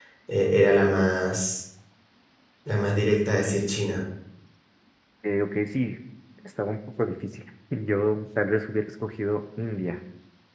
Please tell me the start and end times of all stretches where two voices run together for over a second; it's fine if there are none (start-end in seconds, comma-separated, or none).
none